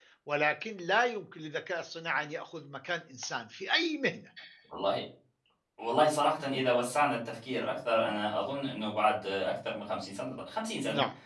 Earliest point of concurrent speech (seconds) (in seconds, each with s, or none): none